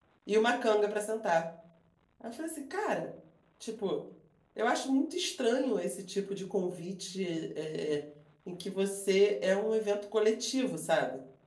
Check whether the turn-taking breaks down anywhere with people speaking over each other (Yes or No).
No